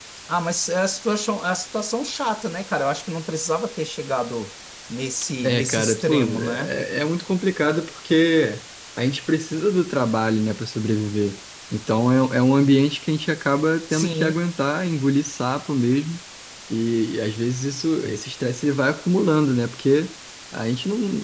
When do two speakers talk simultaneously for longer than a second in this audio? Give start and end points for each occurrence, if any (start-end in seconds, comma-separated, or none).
5.4-6.7